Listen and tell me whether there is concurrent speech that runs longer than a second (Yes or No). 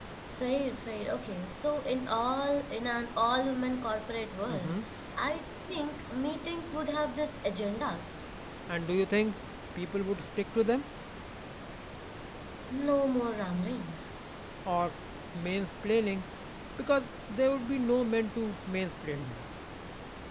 No